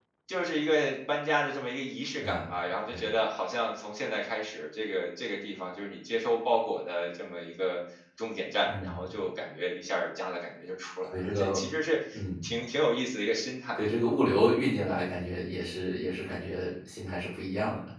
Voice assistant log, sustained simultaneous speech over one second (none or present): none